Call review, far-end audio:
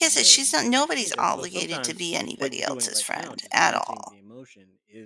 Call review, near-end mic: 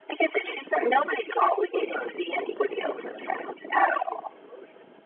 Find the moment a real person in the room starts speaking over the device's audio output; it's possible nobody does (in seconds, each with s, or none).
none